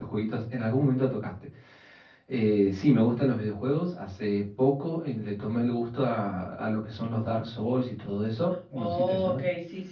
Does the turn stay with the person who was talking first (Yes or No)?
No